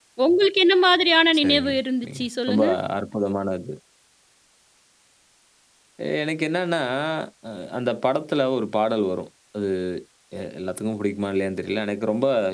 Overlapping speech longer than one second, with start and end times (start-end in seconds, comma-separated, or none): 1.4-2.7